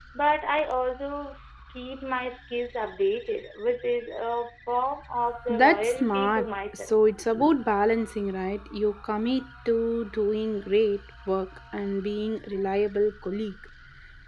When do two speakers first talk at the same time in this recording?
5 s

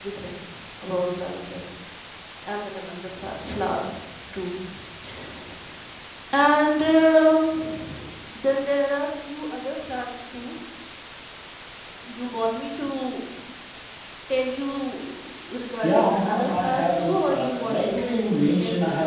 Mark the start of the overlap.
16 s

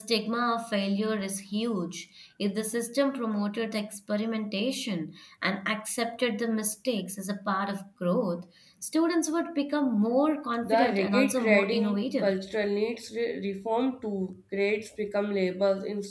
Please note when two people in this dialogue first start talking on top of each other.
11 s

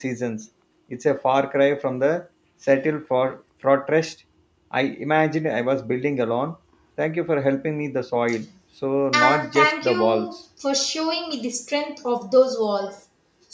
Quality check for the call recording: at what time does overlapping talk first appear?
9 s

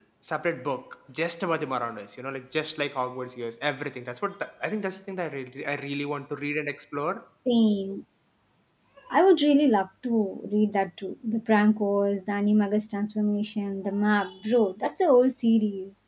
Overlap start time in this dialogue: none

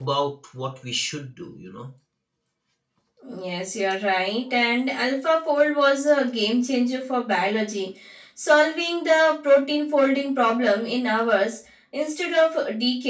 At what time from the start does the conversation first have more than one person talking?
none

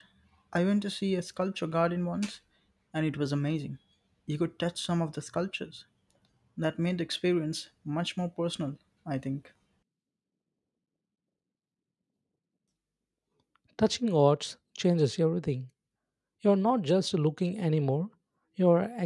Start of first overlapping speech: none

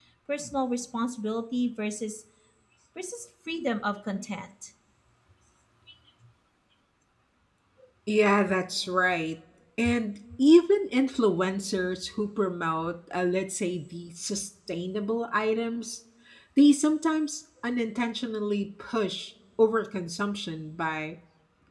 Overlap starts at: none

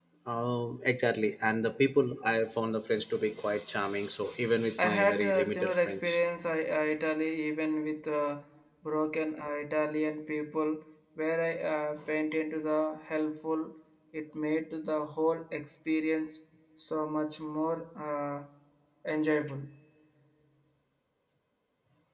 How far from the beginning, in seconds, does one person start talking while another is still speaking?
5 s

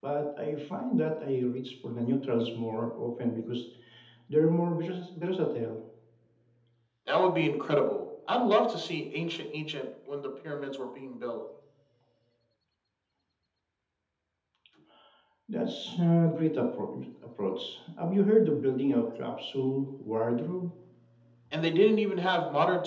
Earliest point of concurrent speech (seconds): none

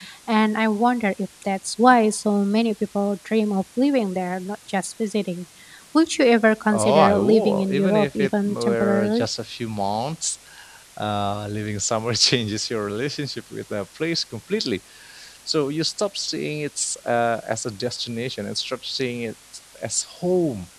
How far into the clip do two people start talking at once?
7 s

